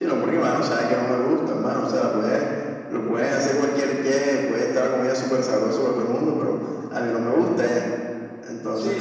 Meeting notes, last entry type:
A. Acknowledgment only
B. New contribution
B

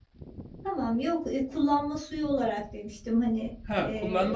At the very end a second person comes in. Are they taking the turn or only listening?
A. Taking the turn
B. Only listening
A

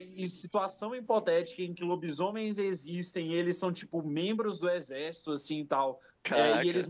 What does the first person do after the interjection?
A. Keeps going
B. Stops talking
A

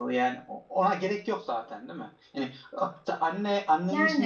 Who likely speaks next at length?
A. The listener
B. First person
B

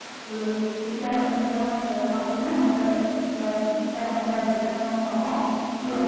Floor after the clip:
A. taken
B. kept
B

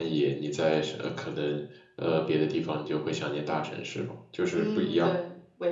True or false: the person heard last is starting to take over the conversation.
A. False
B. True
B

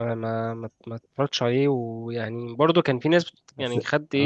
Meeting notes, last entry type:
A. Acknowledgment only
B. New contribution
A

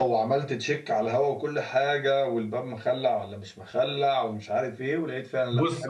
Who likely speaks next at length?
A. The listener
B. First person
A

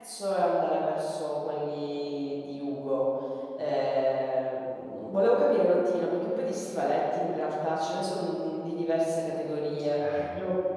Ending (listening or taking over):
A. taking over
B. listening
B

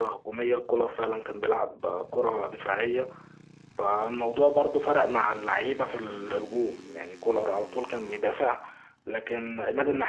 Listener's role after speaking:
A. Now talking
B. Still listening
B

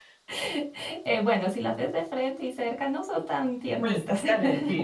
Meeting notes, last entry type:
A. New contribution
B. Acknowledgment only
A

